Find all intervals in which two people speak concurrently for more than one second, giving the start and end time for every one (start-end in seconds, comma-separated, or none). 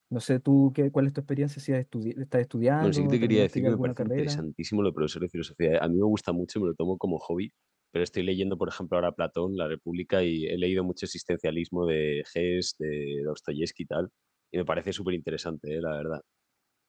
2.8-4.4